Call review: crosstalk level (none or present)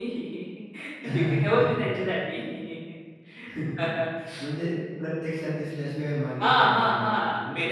present